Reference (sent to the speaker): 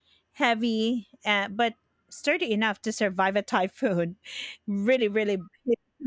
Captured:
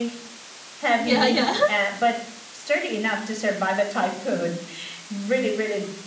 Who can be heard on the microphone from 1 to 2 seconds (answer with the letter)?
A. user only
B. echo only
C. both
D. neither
C